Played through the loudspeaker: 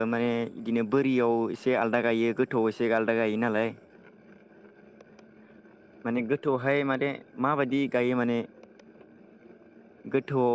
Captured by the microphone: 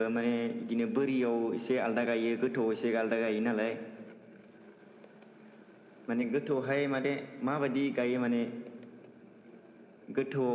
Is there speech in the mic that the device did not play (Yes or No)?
No